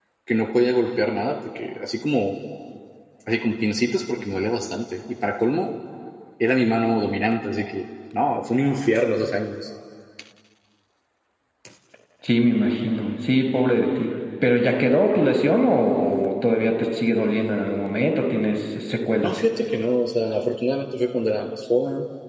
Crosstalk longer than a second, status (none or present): none